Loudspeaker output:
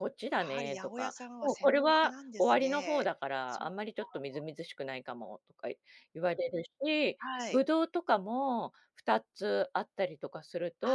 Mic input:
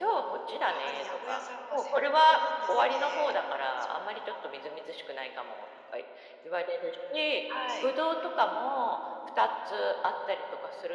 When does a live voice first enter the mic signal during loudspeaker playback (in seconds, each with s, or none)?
none